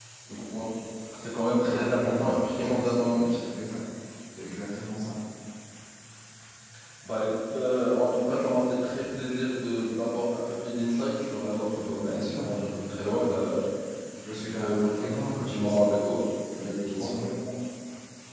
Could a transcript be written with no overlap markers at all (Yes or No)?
No